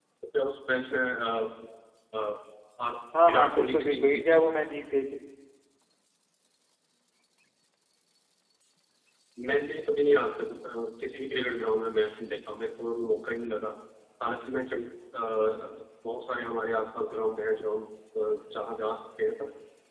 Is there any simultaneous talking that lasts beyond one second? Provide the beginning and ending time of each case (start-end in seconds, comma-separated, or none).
3.2-4.6